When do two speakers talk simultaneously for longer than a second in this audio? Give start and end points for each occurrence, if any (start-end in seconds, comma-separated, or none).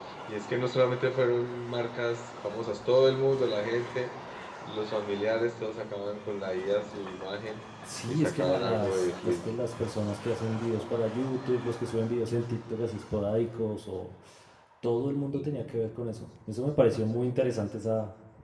8.1-9.4